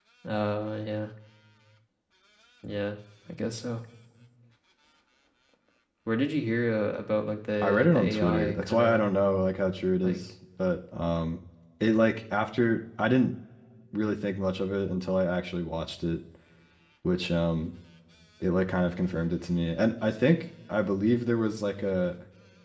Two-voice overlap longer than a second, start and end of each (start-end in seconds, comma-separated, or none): 7.6-9.1